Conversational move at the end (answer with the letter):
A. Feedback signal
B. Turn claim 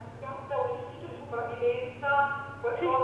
A